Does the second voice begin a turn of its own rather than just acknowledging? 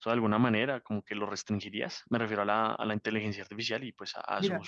Yes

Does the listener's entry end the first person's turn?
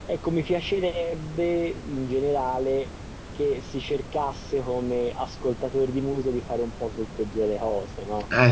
No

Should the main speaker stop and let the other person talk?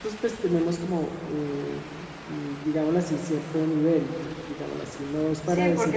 Yes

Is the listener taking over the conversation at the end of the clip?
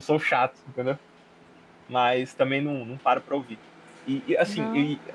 No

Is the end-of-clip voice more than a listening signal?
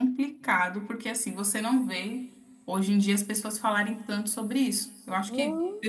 No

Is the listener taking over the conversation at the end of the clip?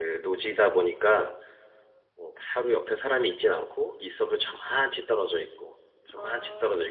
No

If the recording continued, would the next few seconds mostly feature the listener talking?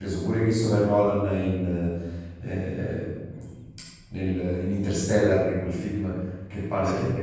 No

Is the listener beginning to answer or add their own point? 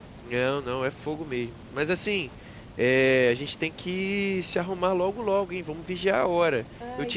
No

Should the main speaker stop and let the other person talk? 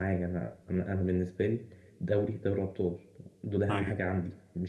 No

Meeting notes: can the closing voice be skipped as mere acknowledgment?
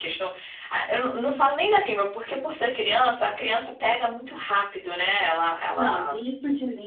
No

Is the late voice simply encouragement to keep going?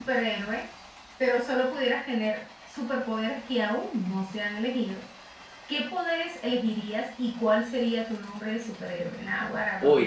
No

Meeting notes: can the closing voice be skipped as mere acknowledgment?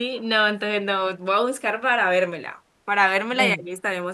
Yes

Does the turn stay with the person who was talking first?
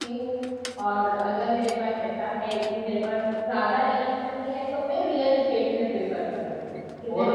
No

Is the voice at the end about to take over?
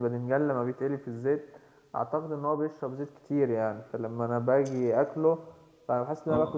No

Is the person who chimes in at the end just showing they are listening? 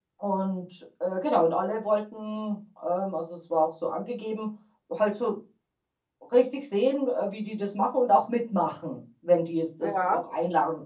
Yes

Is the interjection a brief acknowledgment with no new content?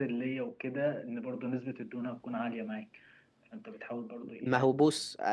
No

